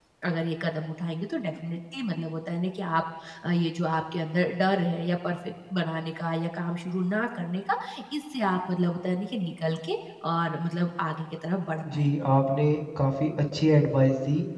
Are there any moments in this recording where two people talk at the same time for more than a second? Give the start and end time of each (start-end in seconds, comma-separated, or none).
none